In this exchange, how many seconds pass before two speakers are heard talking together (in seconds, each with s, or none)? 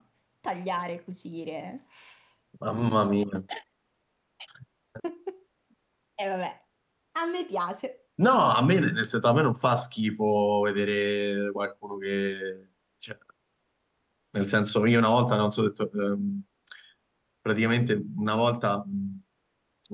none